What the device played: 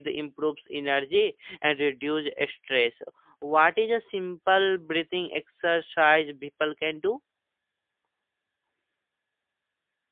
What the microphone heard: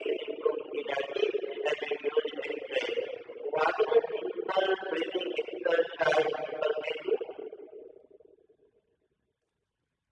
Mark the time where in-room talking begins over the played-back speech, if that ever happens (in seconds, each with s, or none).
none